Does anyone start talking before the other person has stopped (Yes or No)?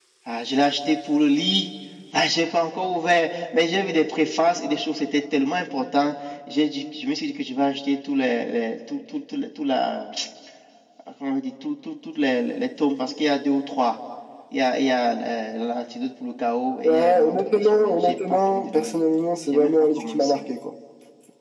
Yes